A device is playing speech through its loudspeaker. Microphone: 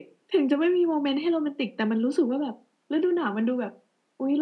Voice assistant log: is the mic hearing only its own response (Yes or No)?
Yes